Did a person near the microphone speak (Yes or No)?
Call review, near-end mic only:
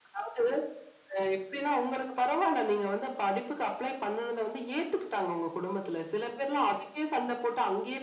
No